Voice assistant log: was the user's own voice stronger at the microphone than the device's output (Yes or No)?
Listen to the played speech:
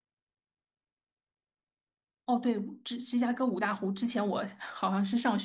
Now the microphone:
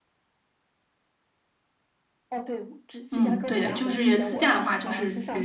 Yes